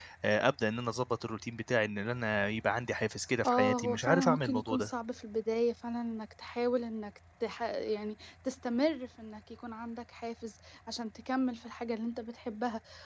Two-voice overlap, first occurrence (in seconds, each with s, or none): 3.4 s